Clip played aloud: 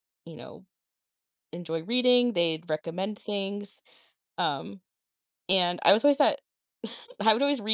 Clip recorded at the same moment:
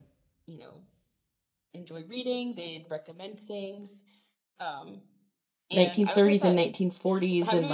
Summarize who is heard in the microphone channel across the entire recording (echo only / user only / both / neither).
both